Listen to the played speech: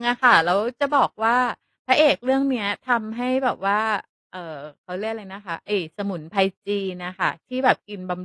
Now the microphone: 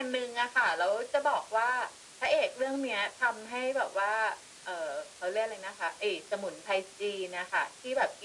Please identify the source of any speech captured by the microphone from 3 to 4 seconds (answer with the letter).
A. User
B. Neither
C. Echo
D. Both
C